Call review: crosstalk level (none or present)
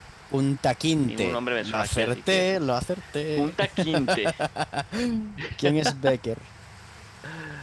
present